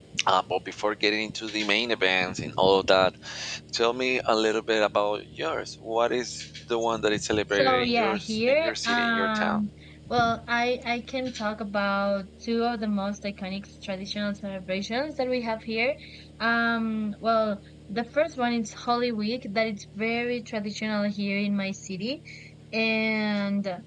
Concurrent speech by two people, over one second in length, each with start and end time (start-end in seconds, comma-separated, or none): 7.5-9.7